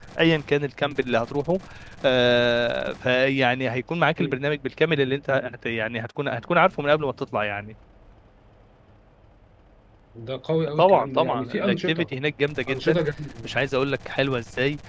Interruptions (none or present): present